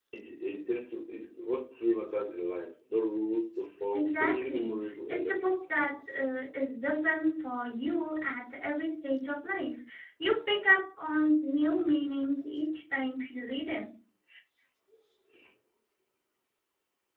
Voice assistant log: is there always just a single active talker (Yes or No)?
No